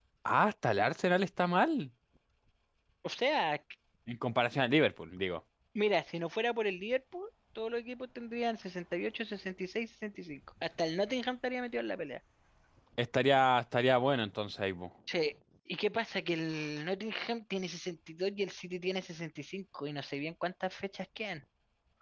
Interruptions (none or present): none